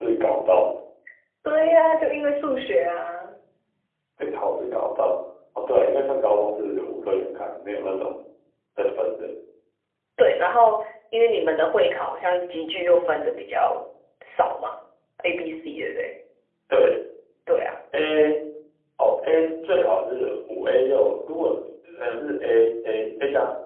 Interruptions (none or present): none